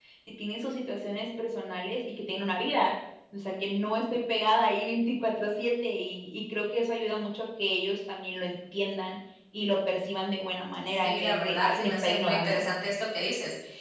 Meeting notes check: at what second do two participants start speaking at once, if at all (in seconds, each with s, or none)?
11.0 s